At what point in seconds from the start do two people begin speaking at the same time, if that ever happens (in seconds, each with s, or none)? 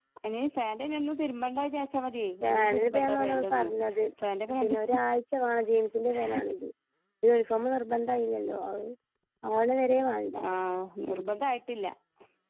2.5 s